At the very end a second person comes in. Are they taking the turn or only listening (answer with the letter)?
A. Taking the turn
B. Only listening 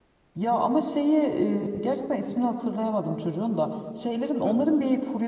B